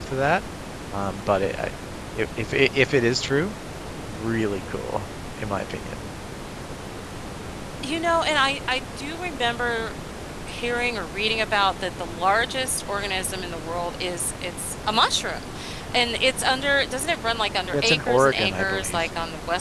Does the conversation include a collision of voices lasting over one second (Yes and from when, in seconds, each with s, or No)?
Yes, from 17.7 s